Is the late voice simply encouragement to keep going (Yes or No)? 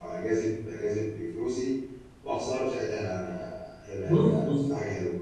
No